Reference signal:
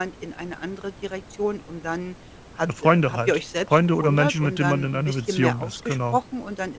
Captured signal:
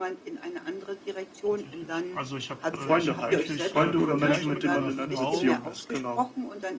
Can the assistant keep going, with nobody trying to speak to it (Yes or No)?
No